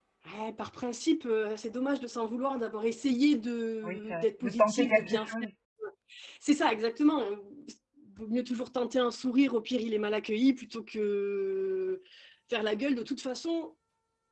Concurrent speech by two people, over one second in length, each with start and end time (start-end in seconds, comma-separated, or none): 3.8-5.3